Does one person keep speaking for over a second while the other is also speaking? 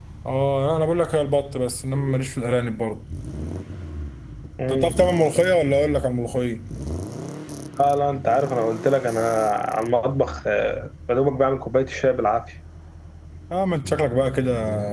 No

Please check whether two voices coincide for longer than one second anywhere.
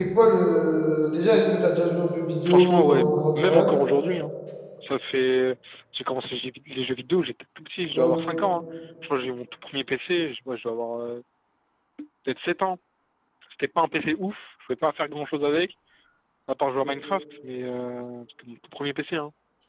Yes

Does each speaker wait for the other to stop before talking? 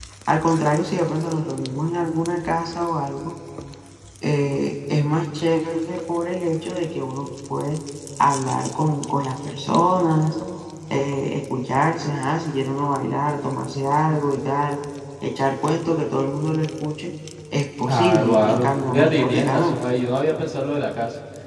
No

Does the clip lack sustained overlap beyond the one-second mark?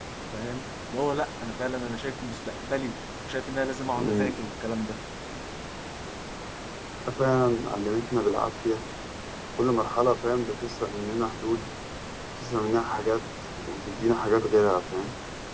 Yes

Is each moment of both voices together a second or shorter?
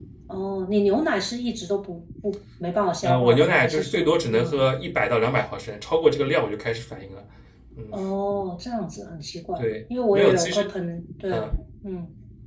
No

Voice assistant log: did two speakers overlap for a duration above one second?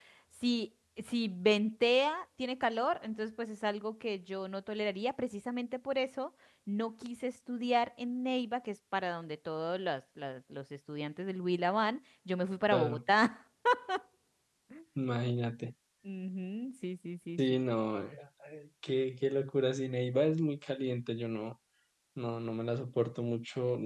No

